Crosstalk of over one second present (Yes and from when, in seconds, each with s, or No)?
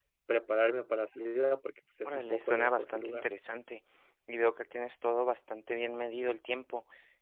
Yes, from 2.0 s